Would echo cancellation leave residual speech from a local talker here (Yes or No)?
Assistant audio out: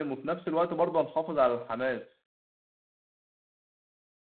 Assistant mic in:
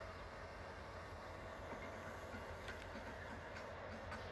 No